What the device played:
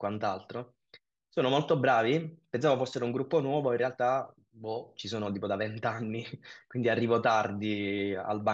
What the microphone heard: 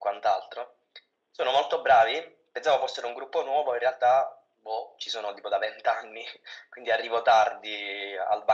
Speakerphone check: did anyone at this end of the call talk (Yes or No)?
No